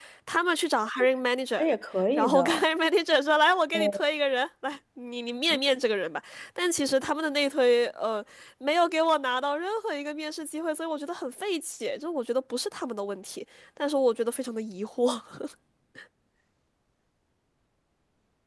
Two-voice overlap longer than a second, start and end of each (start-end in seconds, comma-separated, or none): none